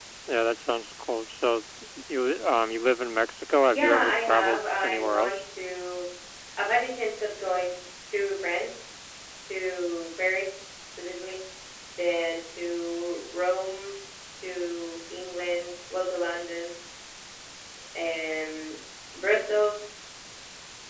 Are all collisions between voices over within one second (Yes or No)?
No